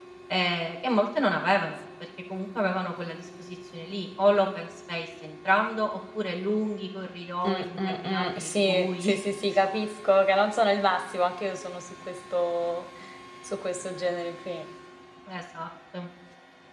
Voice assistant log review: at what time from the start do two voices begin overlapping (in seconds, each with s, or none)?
7.4 s